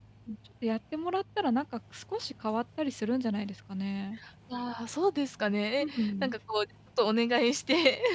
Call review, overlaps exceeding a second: none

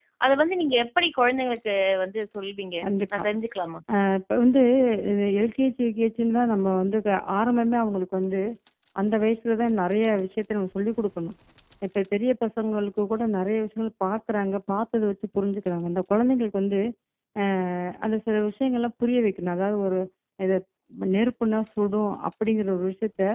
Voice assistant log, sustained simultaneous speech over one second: none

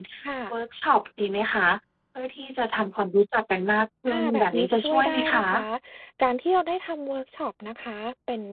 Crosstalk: present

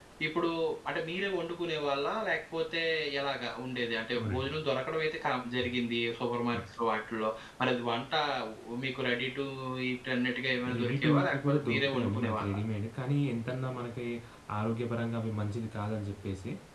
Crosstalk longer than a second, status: present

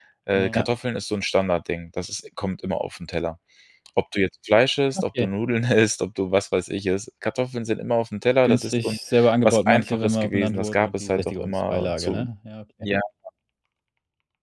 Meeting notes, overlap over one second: present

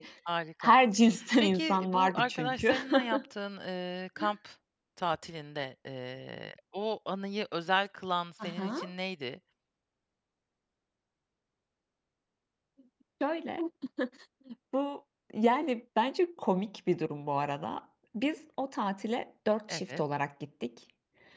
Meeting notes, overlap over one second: present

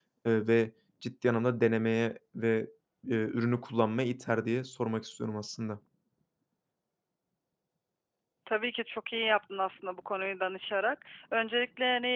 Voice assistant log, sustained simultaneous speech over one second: none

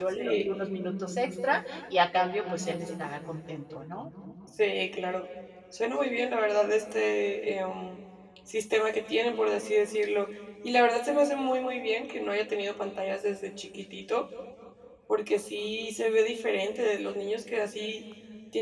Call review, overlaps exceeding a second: none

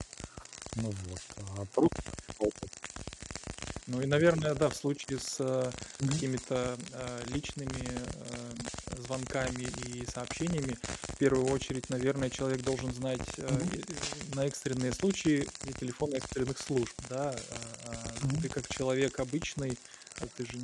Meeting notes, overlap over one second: none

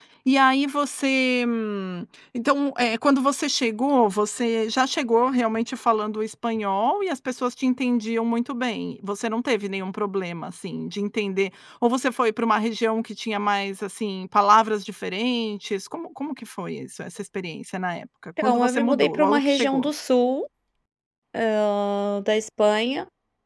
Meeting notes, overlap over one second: present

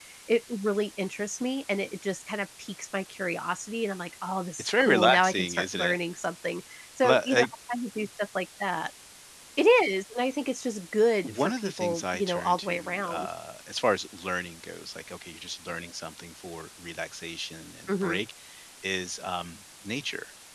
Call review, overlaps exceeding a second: present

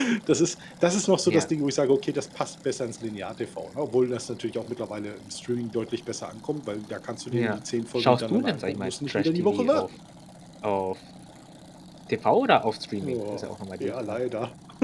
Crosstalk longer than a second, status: present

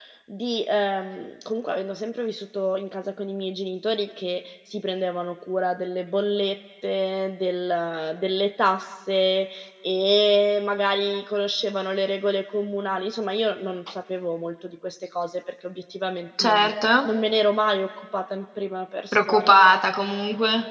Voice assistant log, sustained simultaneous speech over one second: none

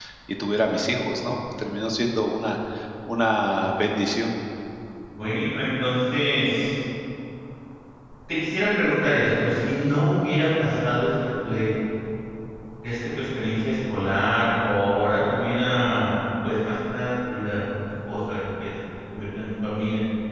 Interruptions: none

